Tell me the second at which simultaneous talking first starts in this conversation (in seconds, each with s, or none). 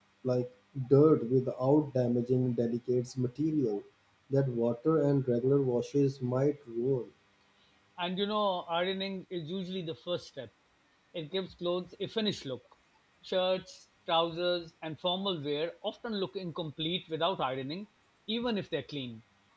none